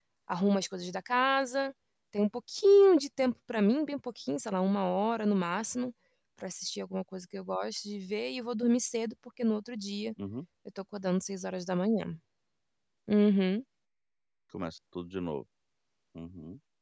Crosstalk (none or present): none